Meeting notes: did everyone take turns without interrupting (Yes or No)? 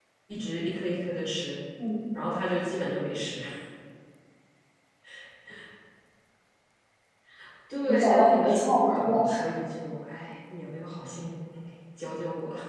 No